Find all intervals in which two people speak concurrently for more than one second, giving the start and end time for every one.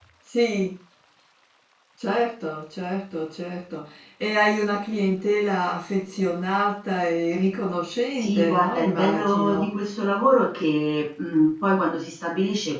8.2-9.7

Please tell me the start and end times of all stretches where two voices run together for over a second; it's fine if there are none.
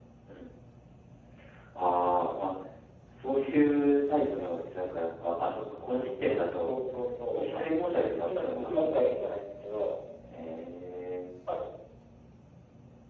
7.3-9.0

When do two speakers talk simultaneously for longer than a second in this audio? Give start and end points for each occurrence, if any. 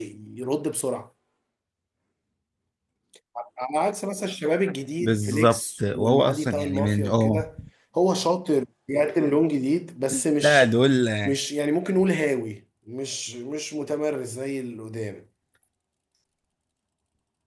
5.0-7.4

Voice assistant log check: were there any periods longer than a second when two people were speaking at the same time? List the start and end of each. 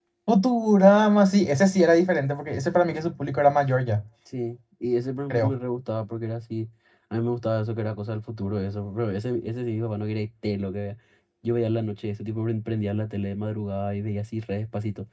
none

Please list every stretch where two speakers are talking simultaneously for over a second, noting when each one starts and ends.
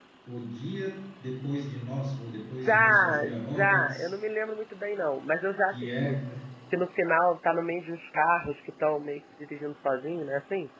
2.6-4.1

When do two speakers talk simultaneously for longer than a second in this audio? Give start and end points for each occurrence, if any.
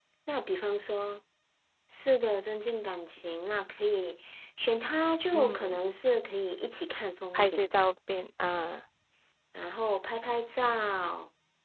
none

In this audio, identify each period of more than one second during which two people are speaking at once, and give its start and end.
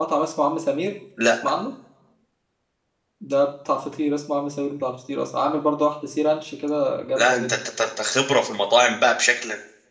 none

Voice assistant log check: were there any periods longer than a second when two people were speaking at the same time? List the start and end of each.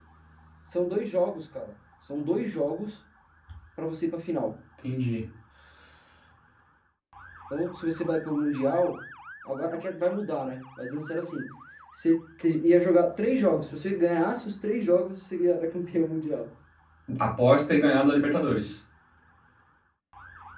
none

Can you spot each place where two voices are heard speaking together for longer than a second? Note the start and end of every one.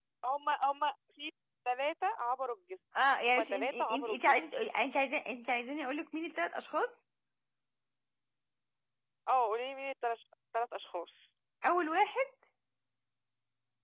3.0-4.4

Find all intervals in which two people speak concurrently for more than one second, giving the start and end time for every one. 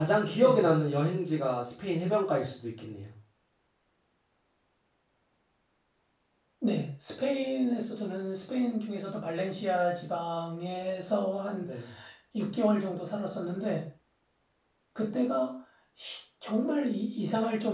none

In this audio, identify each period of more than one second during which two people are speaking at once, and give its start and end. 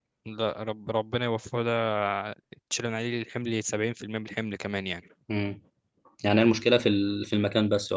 none

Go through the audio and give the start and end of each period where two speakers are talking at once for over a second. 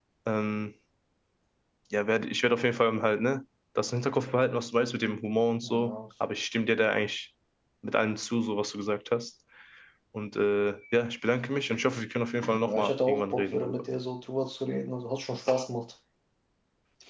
12.5-13.8

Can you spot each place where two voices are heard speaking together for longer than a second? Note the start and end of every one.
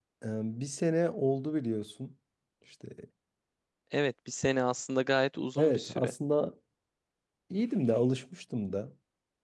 none

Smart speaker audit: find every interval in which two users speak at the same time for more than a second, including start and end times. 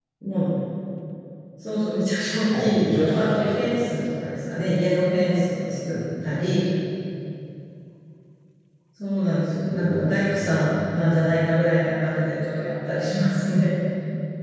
2.5-3.7, 9.7-11.0

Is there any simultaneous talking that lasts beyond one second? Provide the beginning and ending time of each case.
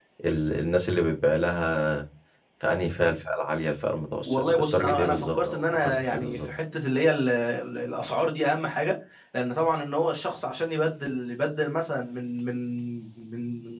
4.3-6.5

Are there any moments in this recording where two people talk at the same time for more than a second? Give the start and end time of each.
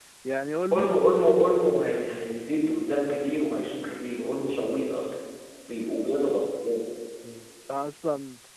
none

